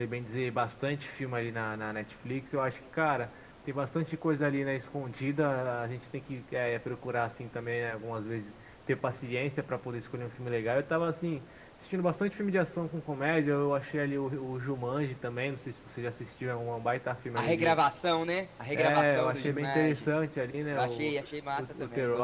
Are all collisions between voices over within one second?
No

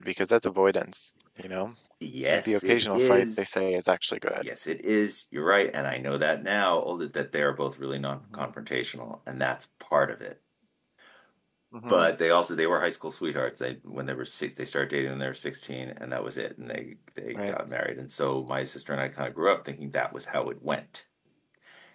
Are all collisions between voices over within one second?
No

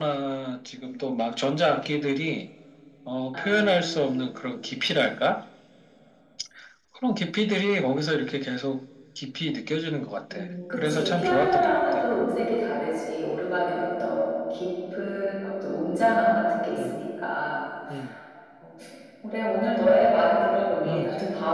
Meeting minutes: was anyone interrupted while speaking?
Yes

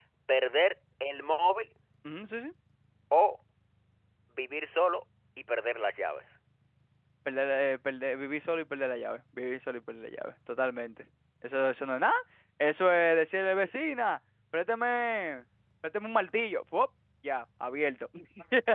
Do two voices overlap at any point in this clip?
No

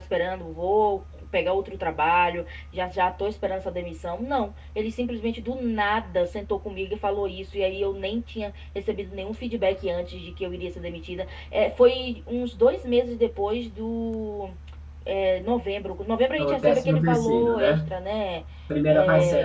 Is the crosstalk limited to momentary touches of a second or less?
No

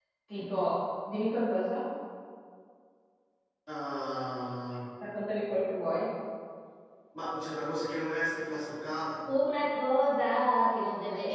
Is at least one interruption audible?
No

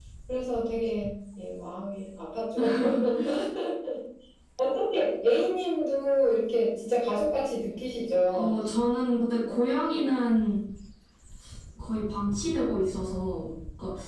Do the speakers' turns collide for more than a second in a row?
No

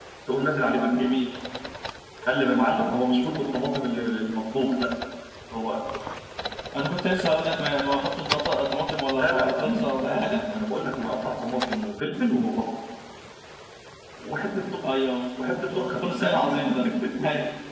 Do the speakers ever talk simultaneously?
Yes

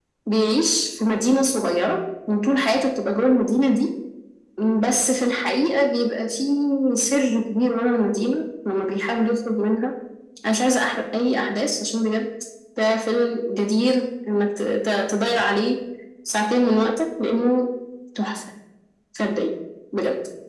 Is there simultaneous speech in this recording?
No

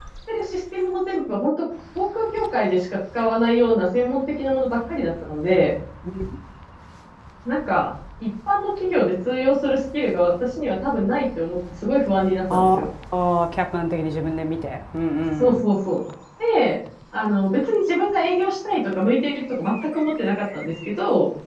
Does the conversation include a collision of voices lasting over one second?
No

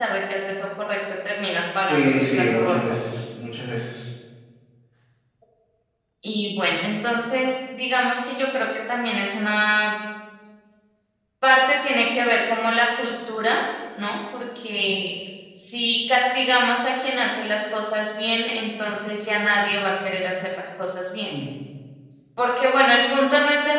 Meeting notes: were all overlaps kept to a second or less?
No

